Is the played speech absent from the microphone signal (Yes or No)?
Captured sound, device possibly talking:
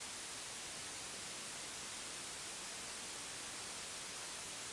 Yes